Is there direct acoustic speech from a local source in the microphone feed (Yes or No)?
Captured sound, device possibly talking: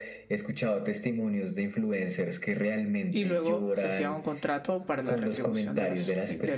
Yes